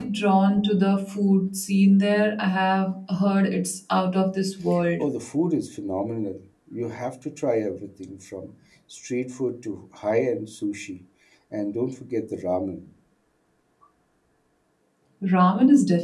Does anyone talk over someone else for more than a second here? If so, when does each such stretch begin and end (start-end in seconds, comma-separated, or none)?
none